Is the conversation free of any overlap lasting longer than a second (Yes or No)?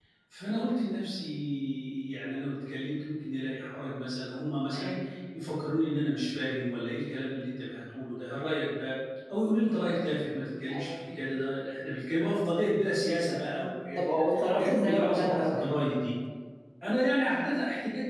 No